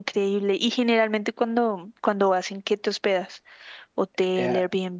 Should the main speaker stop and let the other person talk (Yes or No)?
Yes